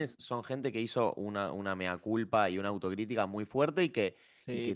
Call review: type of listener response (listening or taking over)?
listening